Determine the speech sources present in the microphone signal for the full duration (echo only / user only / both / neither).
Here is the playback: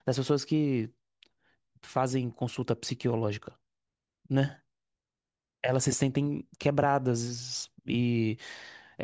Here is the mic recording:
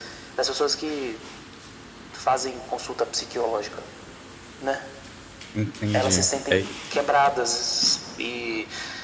both